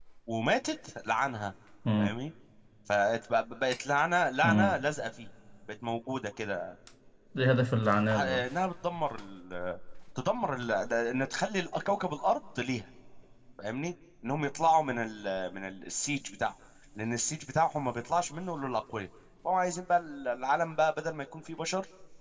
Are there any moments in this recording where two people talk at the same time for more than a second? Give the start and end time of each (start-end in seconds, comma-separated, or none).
none